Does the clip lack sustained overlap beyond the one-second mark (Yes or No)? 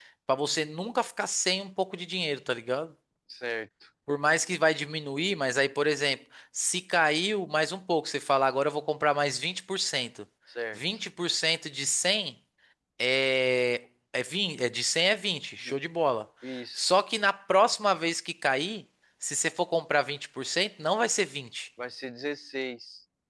Yes